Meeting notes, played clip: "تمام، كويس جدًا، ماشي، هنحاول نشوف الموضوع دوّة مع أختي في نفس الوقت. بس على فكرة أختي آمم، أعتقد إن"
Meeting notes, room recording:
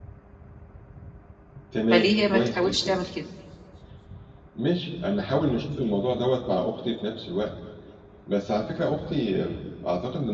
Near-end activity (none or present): present